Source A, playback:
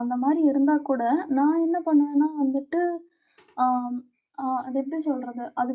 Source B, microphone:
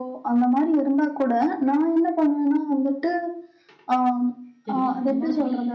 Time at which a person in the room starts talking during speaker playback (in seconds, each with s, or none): 4.6 s